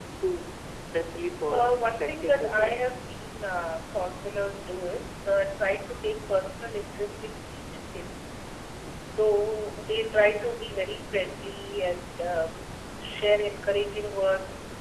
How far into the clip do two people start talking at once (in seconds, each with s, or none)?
1.5 s